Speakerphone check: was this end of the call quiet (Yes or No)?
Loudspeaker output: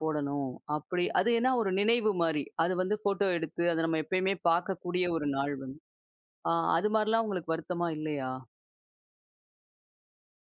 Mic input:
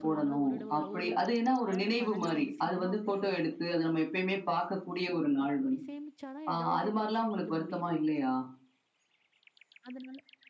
No